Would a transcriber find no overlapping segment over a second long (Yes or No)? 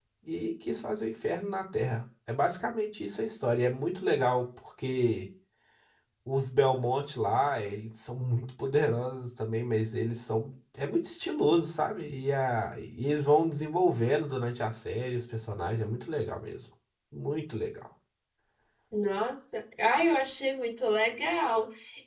Yes